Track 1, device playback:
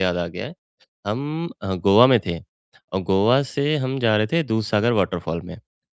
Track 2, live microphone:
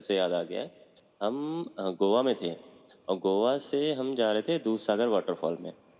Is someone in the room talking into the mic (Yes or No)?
No